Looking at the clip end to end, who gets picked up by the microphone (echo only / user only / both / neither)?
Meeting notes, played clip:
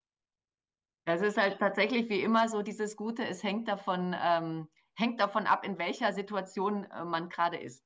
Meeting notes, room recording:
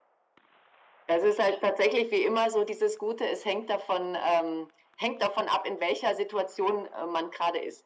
echo only